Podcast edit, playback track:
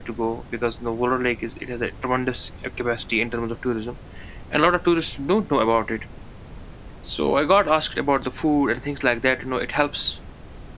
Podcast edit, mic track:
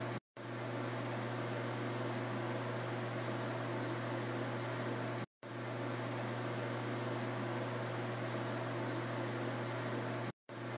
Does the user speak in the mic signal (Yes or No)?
No